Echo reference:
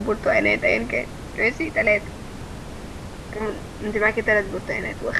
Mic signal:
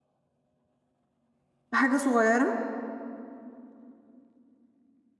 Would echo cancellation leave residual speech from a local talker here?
Yes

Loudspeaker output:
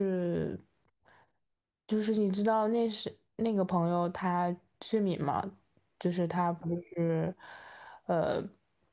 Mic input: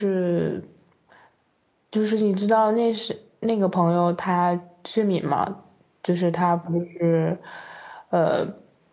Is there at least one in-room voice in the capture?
No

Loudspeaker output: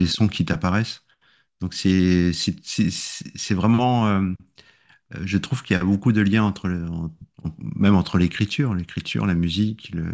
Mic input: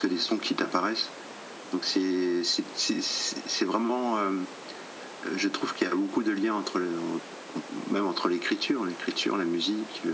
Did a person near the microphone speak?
No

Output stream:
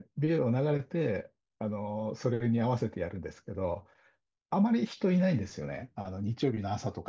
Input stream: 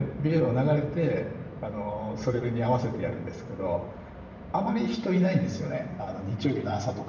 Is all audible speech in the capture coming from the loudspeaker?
Yes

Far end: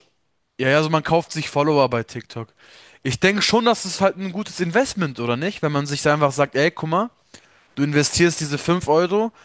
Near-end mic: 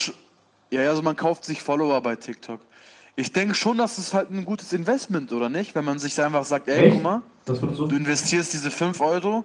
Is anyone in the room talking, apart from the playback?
Yes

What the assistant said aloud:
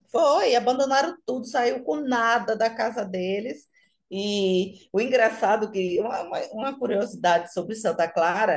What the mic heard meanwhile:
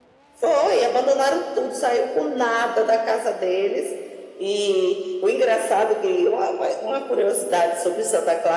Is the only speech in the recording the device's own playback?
Yes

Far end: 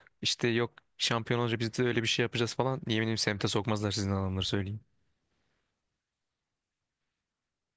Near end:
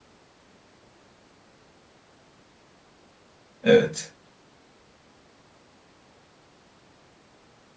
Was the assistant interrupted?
Yes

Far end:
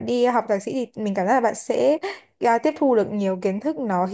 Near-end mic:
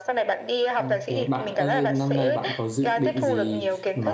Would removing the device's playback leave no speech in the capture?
No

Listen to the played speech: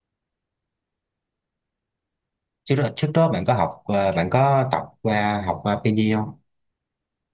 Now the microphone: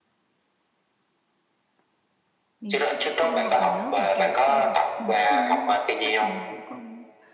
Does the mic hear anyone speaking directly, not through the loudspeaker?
Yes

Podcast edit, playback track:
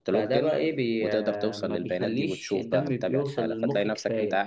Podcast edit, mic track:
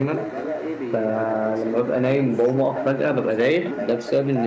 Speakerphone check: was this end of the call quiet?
No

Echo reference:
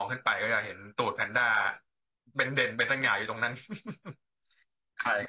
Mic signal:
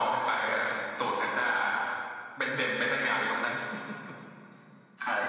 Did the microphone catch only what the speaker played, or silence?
Yes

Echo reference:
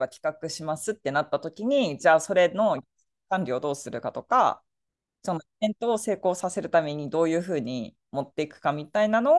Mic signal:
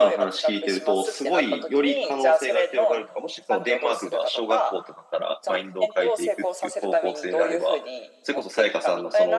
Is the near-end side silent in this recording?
No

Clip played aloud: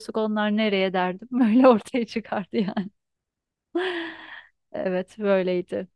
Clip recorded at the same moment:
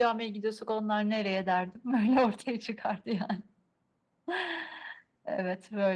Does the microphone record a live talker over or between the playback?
No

